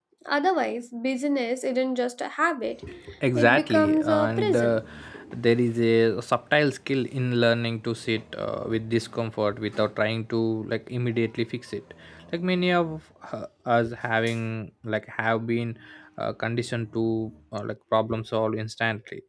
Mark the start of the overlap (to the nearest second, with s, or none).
3 s